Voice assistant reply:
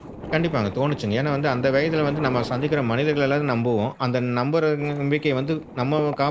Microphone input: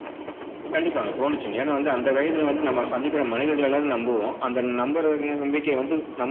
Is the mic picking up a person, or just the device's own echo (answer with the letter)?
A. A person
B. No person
A